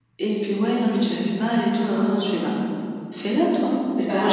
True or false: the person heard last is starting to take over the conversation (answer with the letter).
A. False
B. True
A